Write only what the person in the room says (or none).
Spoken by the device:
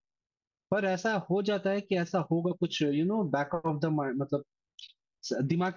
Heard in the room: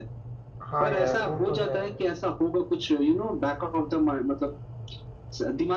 हाँ यार वो तो है